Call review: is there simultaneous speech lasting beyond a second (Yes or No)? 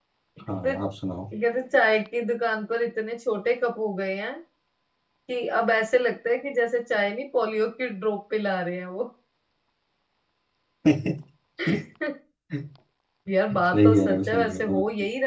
Yes